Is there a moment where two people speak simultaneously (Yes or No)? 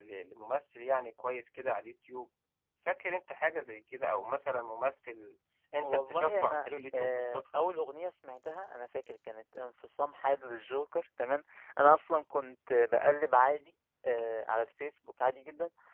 Yes